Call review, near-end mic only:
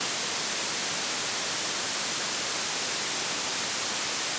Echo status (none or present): none